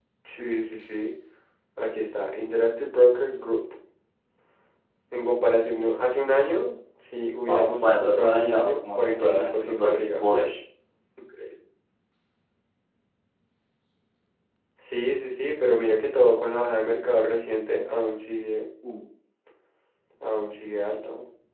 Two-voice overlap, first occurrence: 7.5 s

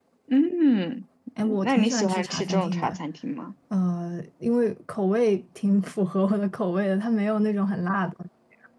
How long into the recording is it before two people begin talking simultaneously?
1.4 s

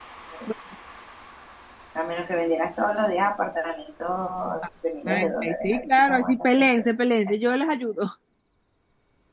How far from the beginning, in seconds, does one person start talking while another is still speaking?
5.1 s

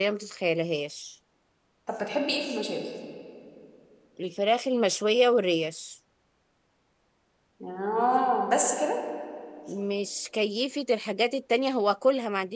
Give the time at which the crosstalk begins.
none

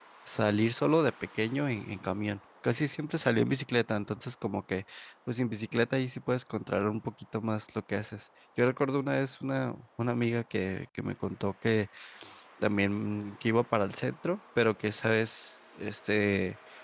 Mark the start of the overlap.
none

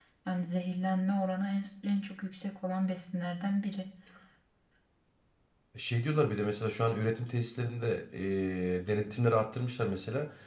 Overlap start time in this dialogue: none

